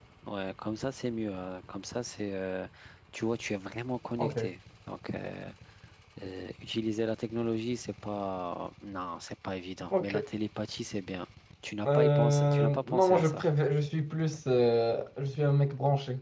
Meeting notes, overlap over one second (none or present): present